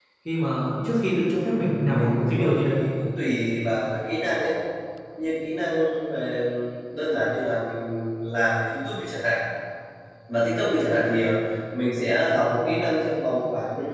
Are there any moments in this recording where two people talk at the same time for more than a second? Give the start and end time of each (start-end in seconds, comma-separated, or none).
1.5-2.8